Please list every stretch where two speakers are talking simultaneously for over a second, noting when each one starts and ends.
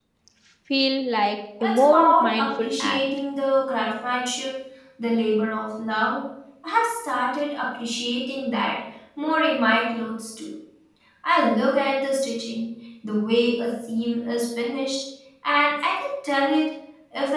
1.6-3.0

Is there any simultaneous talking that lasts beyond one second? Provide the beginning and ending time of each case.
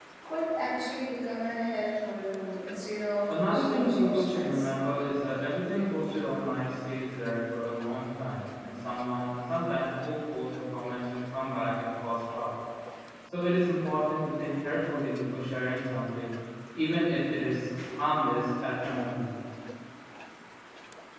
3.5-4.7

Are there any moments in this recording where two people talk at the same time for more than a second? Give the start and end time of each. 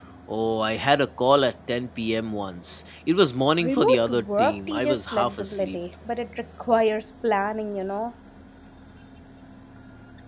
3.6-5.8

